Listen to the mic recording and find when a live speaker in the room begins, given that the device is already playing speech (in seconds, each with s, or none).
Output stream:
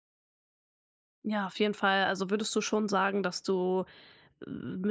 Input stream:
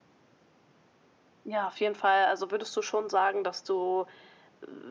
none